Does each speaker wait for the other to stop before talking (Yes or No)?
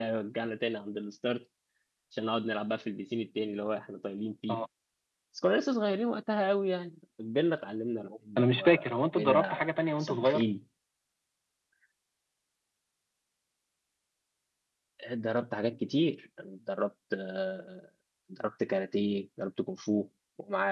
No